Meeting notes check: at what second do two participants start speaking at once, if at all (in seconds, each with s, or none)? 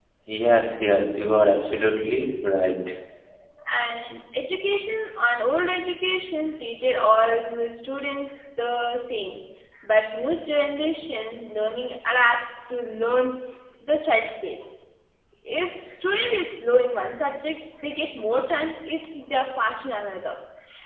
none